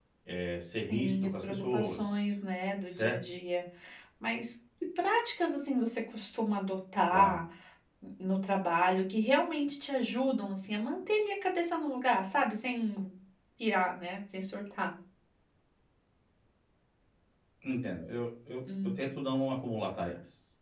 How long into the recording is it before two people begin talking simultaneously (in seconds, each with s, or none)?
0.9 s